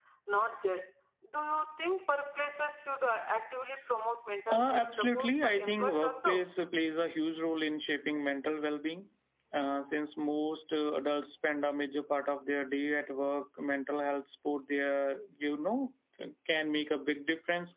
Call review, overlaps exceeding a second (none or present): present